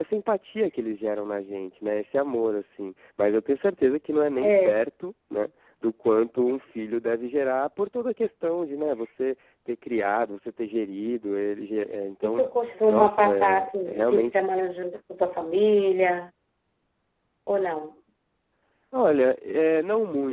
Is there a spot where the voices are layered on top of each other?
Yes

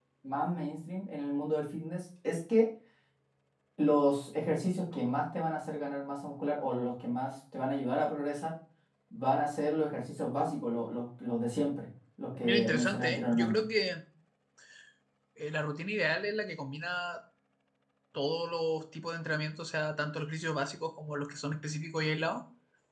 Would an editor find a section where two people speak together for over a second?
Yes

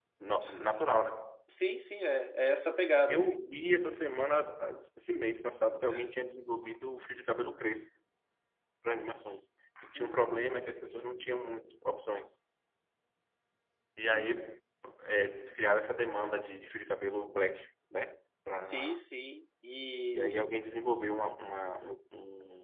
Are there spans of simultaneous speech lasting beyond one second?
No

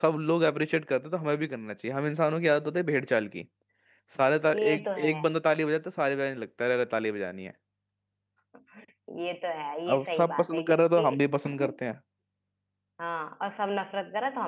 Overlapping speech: Yes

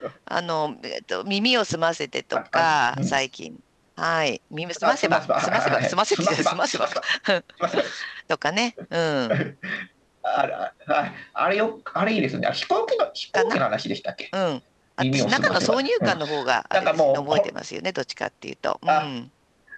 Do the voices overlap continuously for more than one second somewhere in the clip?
Yes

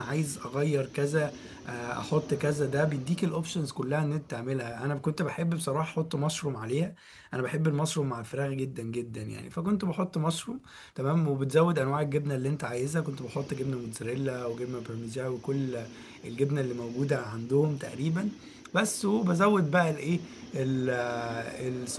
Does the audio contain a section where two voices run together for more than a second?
No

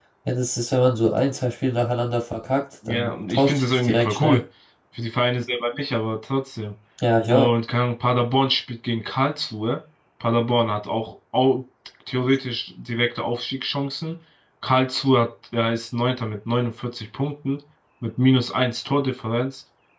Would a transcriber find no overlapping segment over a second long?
No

